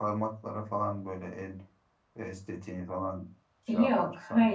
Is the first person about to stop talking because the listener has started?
Yes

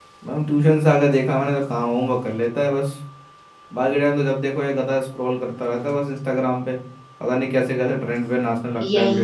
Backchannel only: No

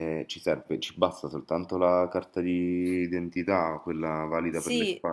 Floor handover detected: Yes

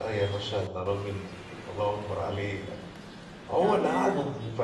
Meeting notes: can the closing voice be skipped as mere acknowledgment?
Yes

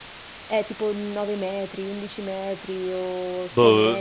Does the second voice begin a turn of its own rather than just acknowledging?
Yes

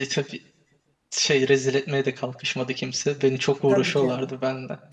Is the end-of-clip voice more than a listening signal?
Yes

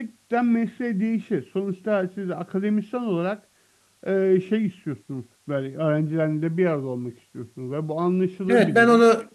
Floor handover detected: Yes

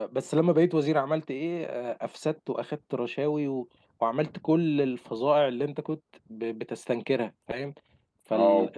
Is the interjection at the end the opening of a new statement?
Yes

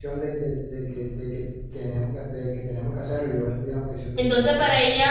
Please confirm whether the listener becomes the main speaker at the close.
Yes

